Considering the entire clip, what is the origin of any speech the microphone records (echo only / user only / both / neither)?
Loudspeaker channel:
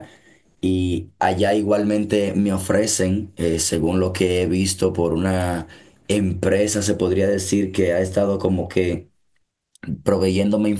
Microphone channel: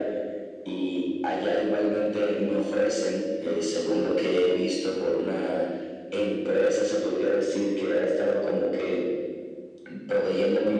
echo only